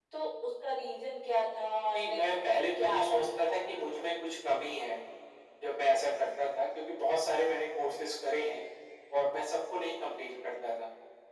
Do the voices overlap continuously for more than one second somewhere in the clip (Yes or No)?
Yes